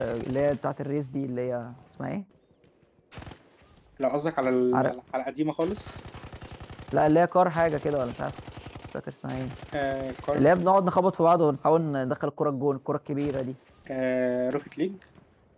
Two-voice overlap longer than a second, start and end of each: none

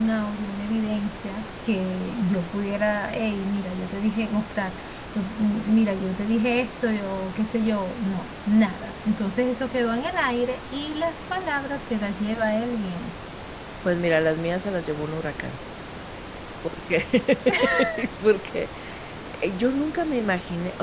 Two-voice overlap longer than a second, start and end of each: none

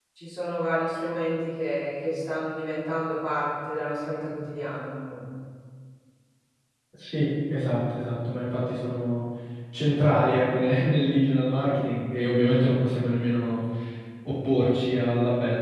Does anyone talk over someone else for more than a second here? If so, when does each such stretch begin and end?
none

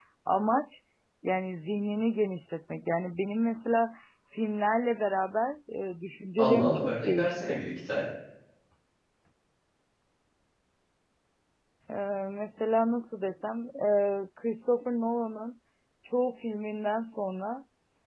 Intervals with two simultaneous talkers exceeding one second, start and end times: 6.4-7.6

